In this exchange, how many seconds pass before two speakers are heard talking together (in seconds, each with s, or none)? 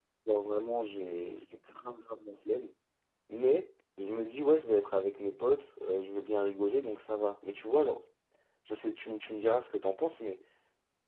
none